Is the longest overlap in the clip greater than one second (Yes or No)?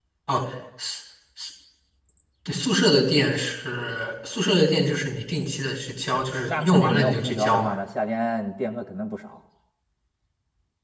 Yes